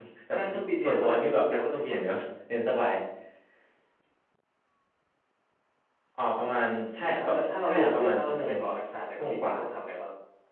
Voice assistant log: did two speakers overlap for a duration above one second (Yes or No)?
Yes